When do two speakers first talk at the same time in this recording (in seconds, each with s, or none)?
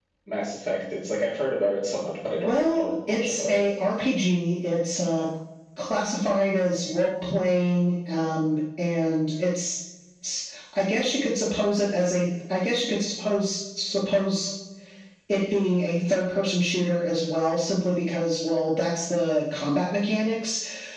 2.4 s